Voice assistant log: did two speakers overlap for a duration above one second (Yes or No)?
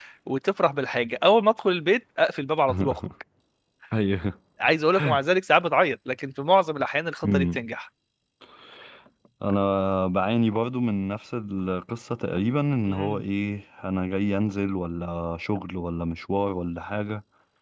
No